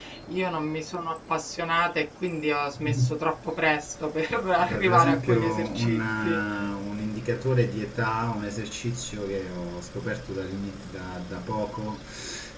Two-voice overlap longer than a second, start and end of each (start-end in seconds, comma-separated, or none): 4.6-6.4